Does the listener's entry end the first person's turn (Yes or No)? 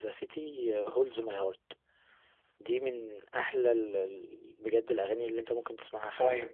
Yes